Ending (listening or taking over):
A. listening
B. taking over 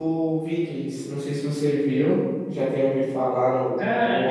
B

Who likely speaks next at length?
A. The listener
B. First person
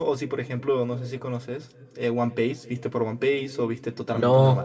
A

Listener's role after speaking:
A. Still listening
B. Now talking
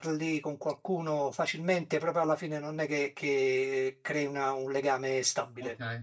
B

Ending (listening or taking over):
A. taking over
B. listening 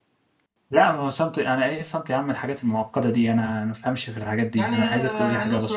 A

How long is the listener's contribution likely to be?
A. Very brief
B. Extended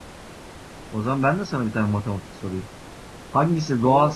A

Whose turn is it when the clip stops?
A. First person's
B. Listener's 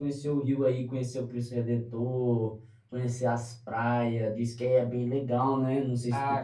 B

